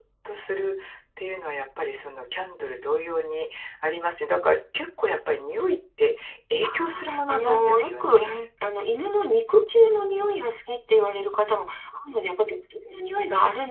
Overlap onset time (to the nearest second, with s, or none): 7 s